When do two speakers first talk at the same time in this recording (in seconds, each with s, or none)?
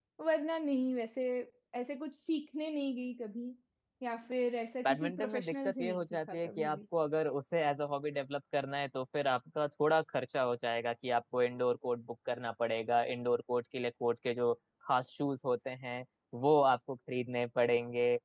4.8 s